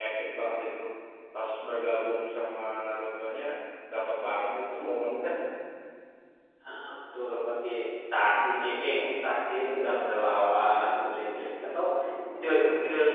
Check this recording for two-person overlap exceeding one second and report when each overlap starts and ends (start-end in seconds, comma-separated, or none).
none